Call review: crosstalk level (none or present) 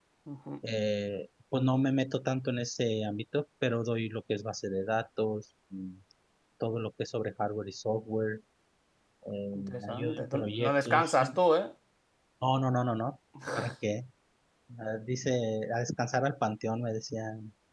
present